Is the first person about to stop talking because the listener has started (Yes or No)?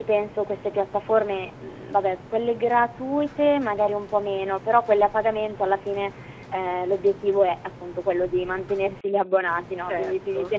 No